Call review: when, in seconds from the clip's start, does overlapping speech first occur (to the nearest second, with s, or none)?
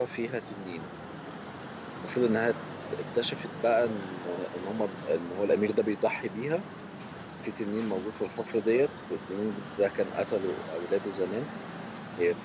none